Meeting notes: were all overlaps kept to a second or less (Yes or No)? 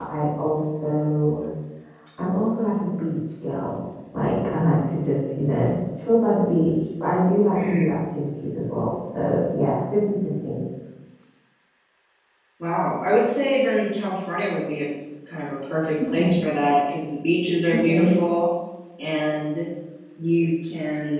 Yes